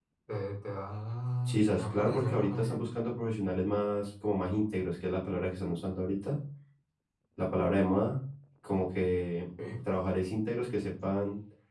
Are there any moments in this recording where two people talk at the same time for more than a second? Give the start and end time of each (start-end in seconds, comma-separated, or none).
1.4-2.9